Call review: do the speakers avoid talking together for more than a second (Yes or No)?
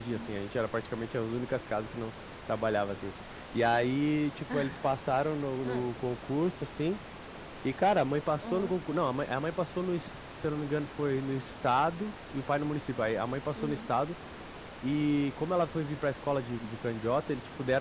Yes